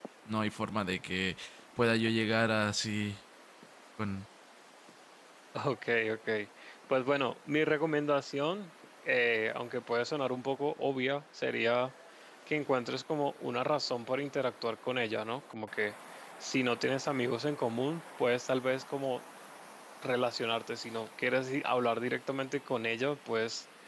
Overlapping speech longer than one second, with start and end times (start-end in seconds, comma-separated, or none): none